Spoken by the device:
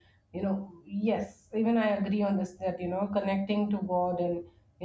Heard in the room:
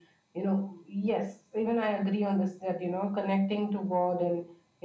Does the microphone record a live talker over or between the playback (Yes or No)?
No